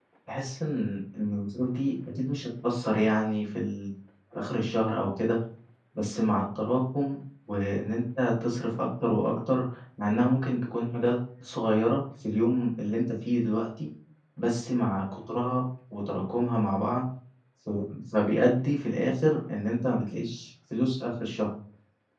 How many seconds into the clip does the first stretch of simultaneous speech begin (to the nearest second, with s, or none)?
none